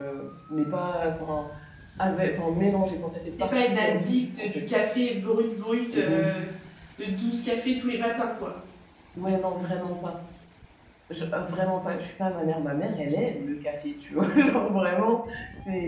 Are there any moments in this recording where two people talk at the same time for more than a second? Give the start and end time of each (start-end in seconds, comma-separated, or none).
3.4-4.6